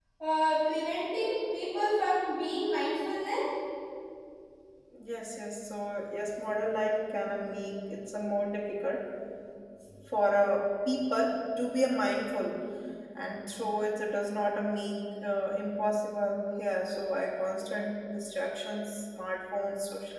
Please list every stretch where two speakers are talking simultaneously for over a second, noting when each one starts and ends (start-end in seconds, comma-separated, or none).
none